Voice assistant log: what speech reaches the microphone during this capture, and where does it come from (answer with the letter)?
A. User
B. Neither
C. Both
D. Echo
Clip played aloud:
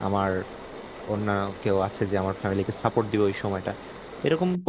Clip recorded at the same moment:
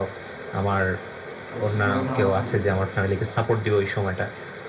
C